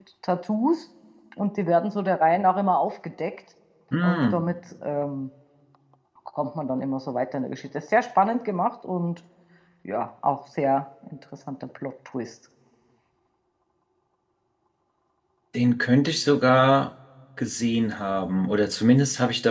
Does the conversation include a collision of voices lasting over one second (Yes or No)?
No